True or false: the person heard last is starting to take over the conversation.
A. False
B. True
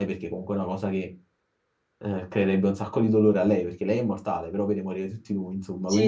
B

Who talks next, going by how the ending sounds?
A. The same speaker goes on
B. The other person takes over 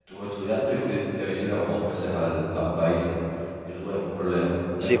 B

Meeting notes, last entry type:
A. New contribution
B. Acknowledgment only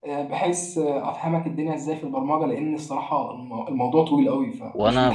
A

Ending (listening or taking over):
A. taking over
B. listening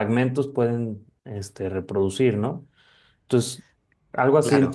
B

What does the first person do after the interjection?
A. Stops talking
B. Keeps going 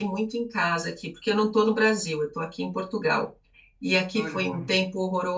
B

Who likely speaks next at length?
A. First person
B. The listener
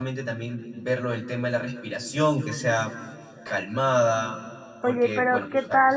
B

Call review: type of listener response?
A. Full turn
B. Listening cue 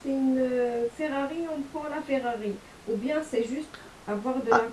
A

